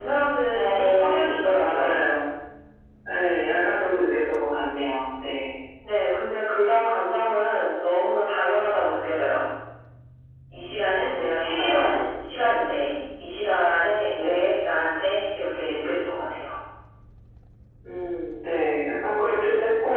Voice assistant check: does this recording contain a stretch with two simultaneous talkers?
Yes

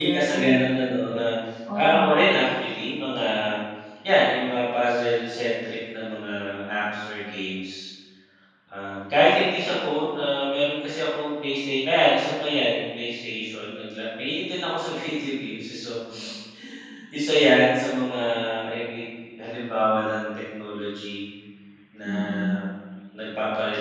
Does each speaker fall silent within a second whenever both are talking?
Yes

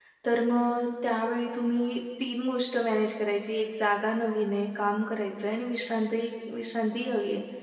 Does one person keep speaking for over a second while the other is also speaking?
No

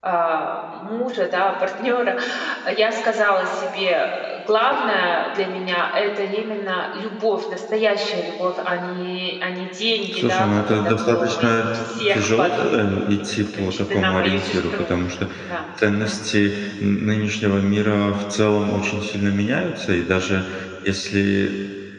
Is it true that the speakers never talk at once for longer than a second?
No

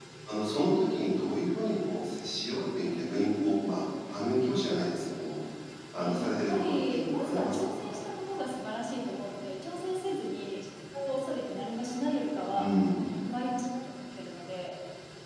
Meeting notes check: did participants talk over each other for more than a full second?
Yes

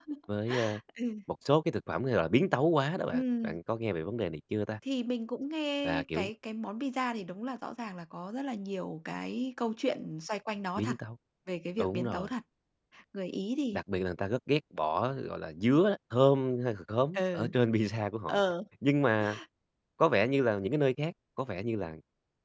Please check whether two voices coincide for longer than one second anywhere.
No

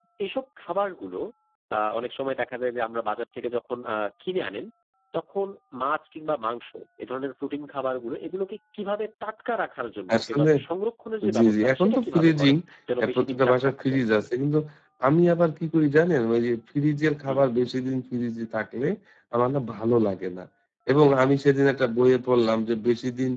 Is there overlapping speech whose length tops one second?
Yes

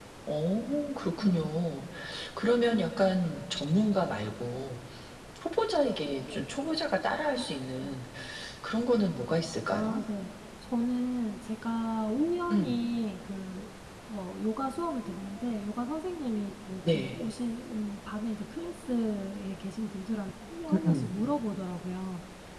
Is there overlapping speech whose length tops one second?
No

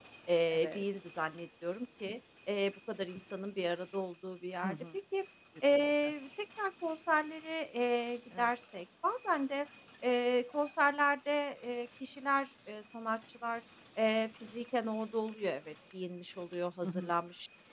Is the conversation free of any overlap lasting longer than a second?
Yes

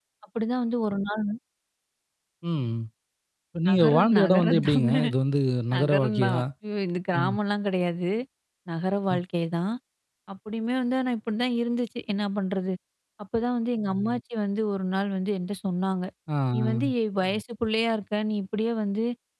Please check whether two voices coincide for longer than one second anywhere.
Yes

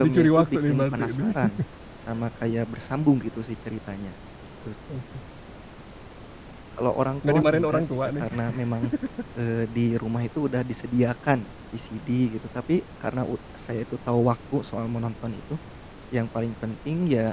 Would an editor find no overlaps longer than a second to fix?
No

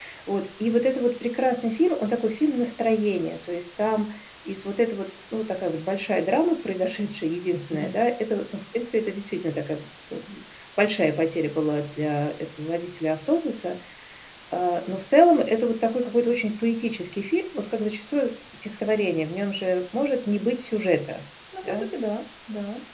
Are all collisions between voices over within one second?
Yes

